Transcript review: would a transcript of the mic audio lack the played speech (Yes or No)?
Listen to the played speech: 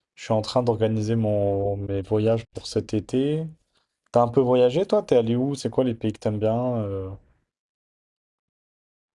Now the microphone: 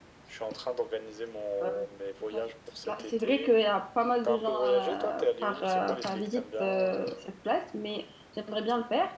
No